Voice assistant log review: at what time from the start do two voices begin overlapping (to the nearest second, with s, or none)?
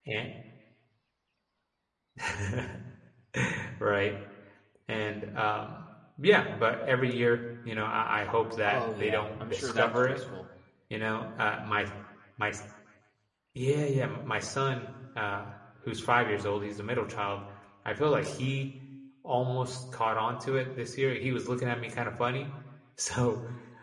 9 s